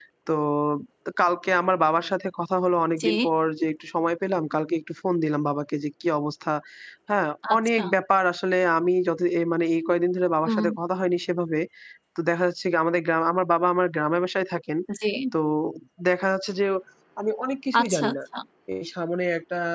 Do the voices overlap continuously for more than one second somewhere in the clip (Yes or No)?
No